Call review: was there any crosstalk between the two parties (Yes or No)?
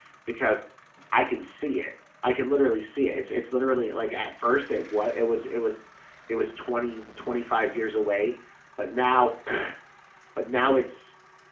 No